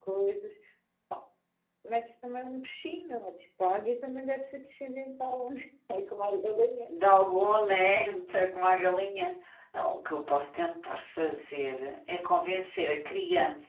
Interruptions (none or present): none